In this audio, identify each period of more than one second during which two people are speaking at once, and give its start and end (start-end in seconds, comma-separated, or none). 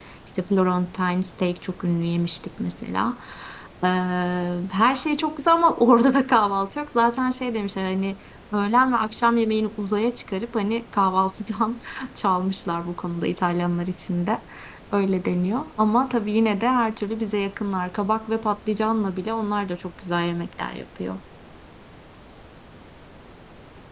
none